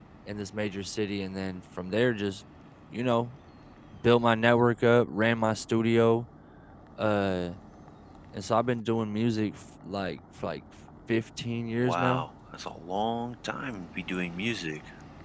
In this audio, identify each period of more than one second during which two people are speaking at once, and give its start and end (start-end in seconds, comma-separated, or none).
none